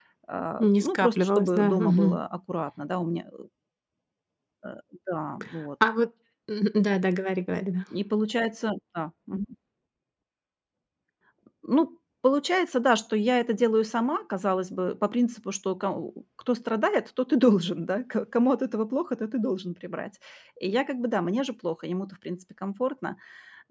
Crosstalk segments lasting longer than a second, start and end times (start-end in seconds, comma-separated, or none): 0.6-2.2